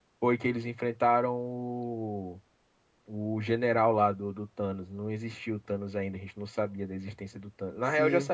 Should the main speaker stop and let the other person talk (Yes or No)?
No